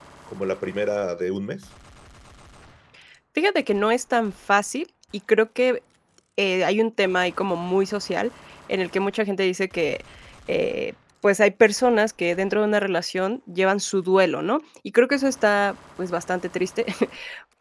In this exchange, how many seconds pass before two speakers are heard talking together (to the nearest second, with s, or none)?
none